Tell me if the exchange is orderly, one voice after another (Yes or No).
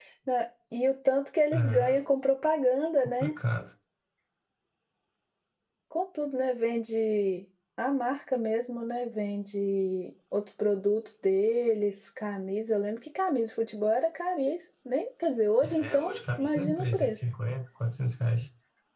No